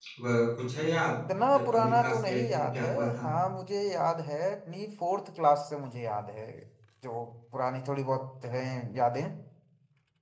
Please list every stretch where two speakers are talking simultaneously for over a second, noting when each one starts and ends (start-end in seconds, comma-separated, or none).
1.5-3.2